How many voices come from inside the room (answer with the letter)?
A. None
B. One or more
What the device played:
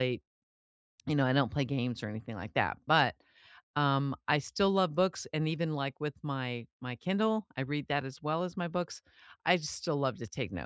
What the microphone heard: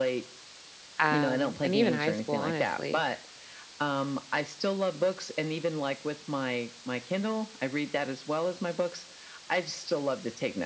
B